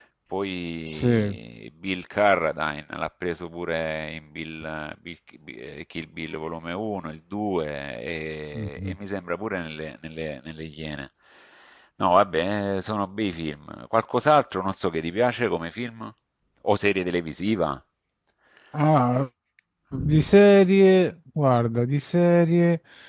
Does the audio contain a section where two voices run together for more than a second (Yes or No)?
No